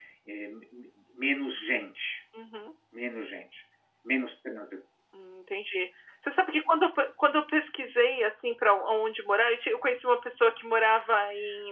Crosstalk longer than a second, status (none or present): none